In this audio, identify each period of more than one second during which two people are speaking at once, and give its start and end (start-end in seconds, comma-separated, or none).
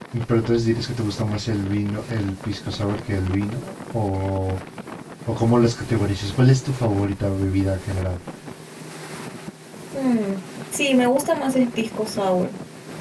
none